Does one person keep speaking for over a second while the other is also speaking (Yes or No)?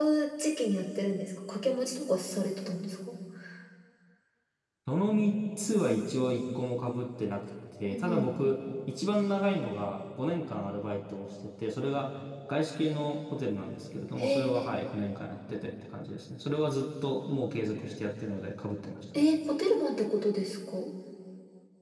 No